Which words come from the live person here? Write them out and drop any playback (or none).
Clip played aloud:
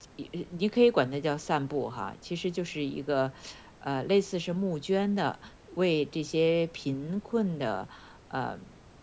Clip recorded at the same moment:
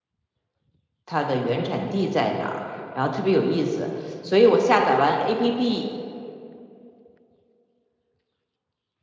它的原产地在哪儿，然后特别有意思，所以我下载完 APP。